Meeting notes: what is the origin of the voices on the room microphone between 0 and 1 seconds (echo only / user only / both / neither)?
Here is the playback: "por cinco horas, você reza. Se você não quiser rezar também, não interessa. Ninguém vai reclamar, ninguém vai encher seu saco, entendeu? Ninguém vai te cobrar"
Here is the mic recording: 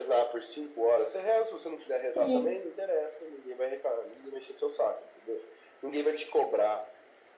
echo only